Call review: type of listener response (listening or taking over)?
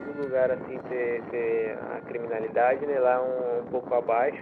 listening